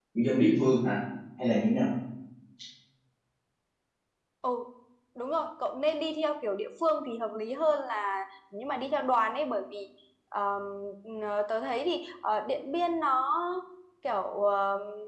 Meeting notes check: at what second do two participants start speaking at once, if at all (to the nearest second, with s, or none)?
none